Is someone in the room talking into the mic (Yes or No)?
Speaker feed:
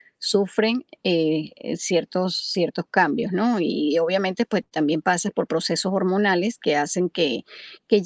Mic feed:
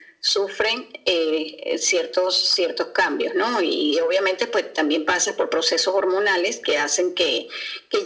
No